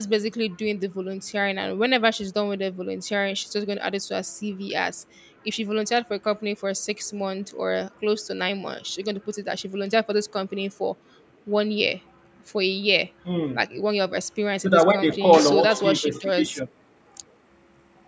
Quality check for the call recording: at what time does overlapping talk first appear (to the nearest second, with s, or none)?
15 s